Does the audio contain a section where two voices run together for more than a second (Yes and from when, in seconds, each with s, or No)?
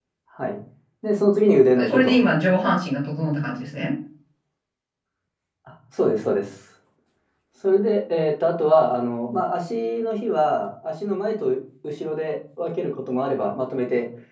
No